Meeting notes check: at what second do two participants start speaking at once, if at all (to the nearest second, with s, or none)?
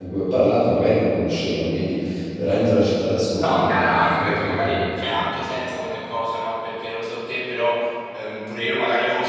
3 s